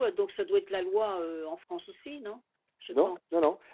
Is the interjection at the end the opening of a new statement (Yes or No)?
Yes